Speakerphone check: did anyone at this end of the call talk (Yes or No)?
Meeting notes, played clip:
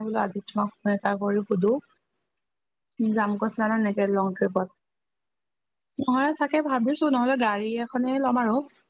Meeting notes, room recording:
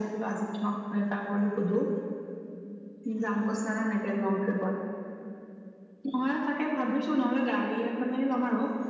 No